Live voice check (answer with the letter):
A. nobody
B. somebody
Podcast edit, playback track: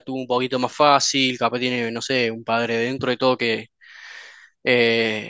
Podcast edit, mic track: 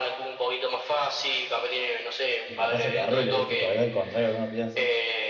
B